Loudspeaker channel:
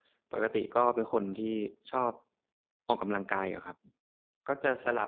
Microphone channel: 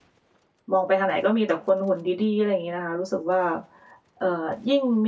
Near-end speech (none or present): present